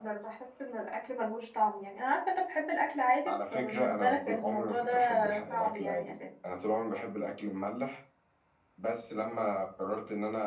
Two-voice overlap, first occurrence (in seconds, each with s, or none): 3.3 s